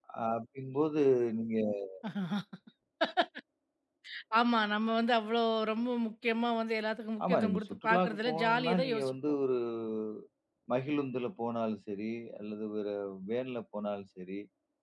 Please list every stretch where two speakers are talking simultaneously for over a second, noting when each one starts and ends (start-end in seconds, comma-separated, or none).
7.3-9.2